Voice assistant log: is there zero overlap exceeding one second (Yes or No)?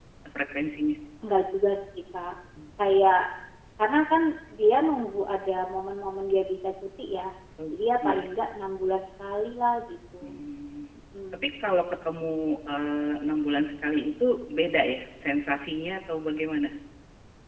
Yes